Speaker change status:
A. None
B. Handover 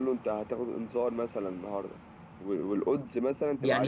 B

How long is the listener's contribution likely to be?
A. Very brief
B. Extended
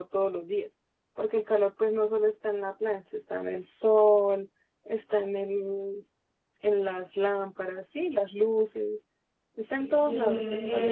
B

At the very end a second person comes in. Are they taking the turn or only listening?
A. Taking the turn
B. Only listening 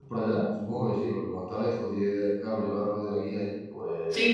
A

